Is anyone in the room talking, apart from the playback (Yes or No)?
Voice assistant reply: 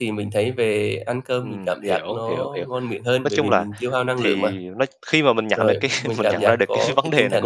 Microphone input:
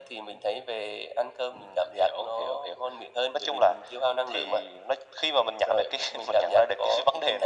No